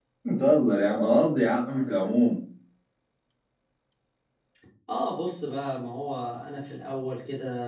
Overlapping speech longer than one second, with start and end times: none

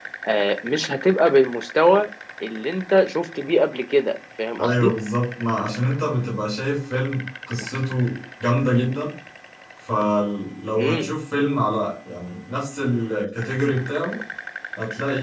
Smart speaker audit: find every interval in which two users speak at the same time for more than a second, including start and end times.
none

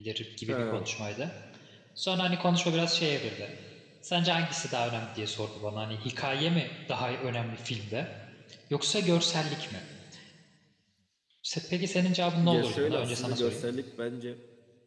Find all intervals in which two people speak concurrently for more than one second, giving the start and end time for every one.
12.4-13.6

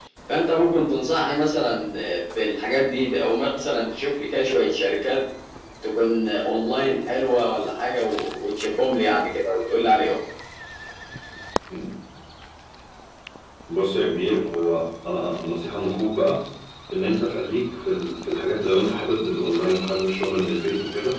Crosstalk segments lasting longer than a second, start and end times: none

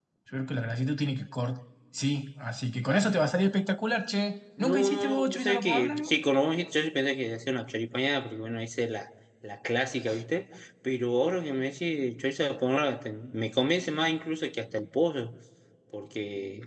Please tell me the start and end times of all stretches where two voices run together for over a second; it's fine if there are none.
4.6-6.1

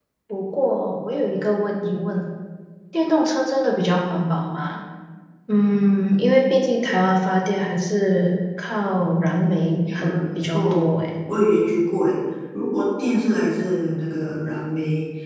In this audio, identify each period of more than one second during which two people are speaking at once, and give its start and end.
9.4-10.9

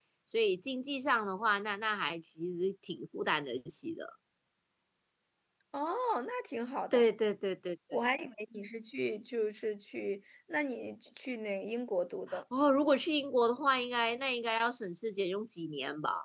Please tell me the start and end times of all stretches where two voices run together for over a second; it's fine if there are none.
none

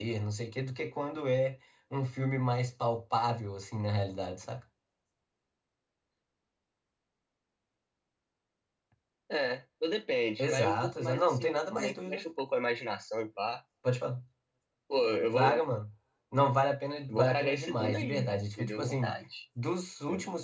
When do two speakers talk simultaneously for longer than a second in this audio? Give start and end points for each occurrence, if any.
10.4-12.2, 17.1-19.1

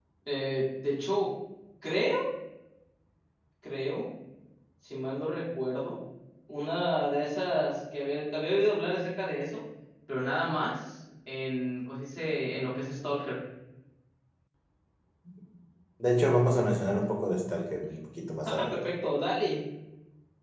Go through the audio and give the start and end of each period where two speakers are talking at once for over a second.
none

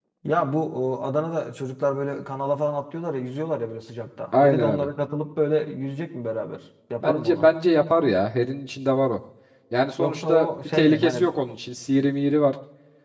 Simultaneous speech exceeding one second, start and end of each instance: 10.0-11.3

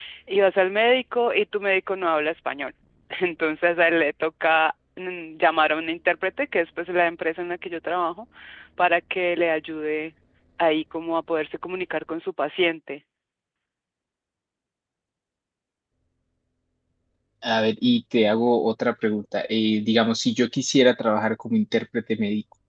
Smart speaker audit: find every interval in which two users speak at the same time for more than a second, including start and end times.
none

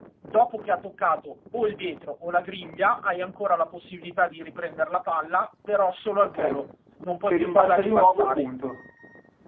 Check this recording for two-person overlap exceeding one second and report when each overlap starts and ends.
7.2-8.5

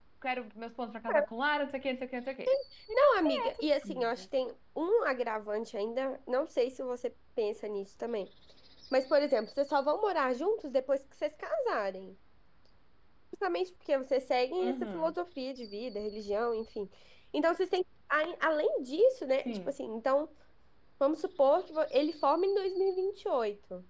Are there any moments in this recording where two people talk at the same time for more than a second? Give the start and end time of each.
2.9-4.2

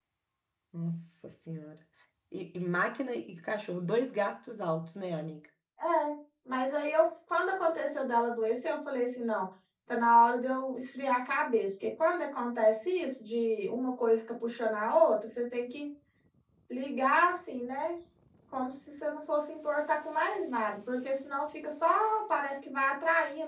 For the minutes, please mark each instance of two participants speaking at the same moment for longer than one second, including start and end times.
none

